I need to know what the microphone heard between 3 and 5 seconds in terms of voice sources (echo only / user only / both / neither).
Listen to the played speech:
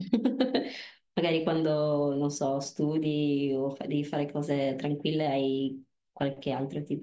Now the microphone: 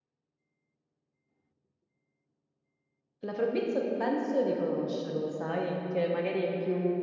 user only